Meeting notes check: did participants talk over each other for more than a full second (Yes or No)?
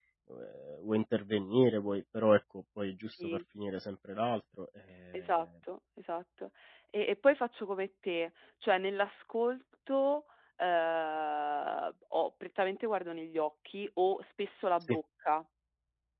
No